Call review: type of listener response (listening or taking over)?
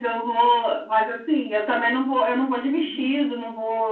listening